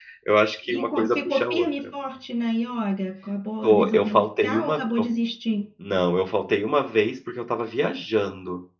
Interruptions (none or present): present